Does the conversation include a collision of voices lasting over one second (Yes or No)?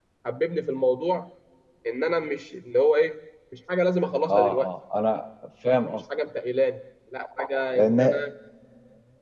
No